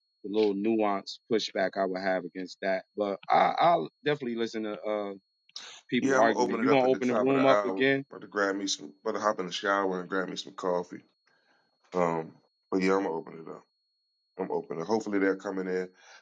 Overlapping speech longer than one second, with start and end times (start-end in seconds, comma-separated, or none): 6.0-7.8